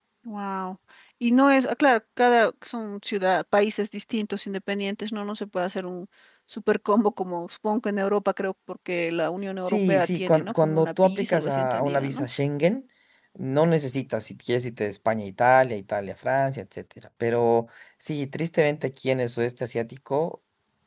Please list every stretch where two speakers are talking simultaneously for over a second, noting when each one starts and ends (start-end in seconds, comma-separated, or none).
9.6-12.3